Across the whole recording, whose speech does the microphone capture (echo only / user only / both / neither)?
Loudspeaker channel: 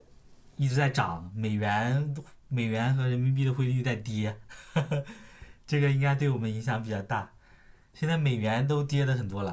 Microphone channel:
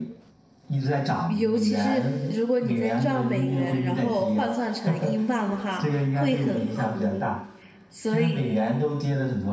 both